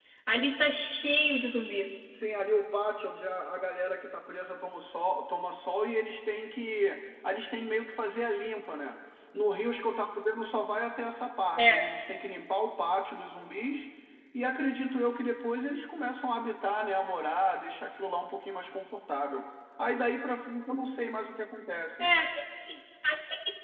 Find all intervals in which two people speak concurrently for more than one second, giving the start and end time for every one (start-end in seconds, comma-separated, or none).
none